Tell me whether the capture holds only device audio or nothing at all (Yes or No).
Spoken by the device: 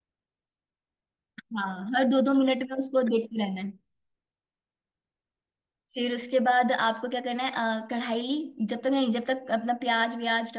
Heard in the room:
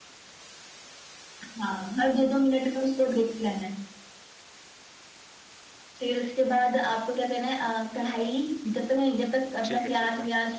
No